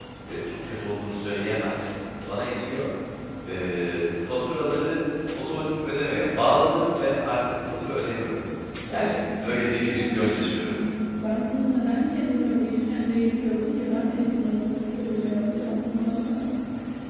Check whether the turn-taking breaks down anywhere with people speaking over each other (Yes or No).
Yes